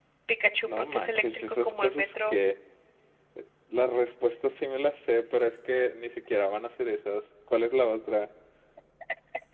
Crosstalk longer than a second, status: present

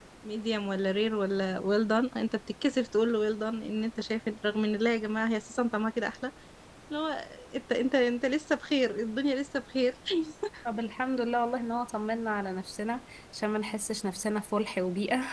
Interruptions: none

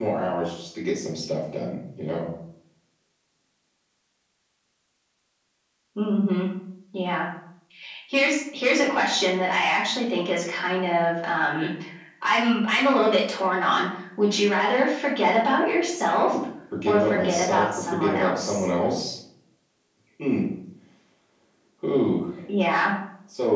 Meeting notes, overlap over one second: present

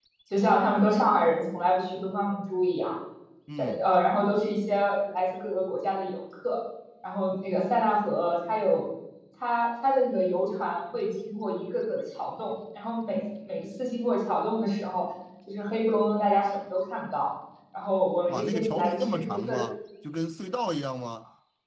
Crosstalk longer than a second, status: present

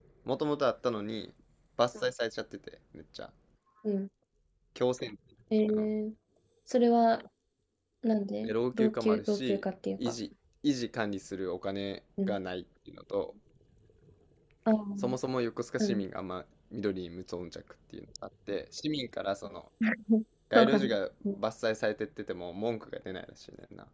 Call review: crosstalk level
present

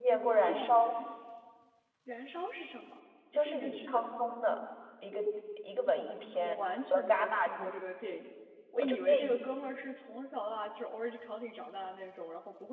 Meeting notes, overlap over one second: present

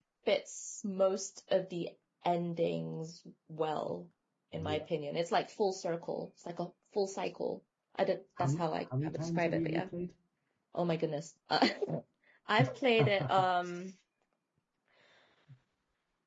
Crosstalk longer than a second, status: present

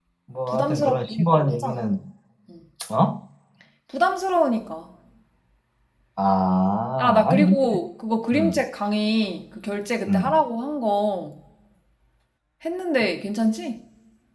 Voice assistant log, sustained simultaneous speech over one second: present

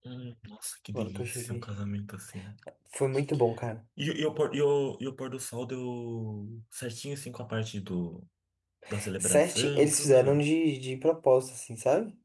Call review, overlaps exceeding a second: present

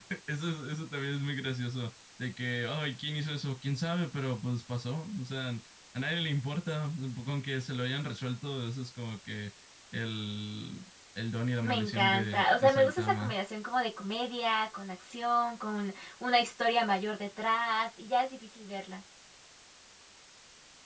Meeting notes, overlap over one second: present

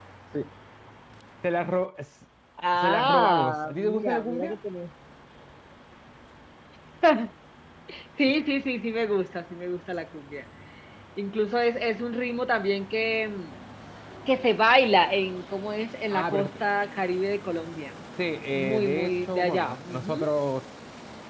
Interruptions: present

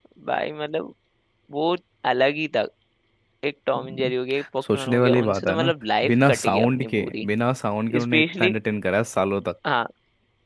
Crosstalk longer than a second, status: present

